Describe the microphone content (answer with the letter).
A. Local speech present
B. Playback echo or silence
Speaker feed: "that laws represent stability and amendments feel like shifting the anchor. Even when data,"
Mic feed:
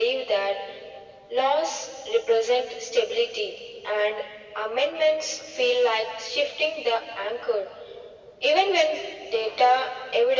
B